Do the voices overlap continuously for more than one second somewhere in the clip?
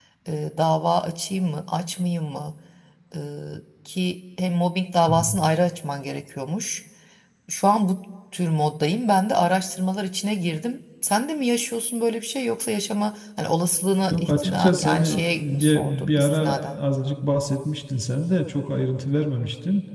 Yes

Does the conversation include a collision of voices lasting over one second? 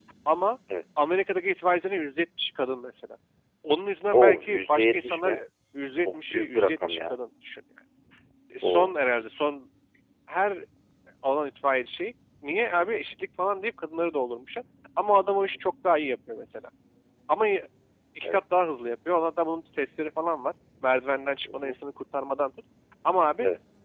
Yes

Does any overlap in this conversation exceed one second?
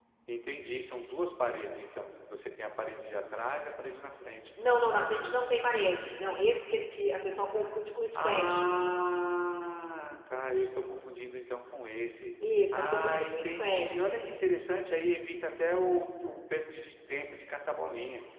Yes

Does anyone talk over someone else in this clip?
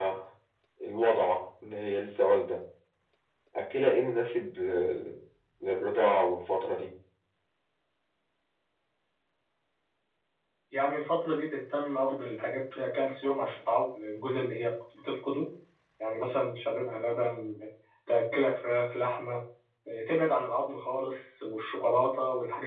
No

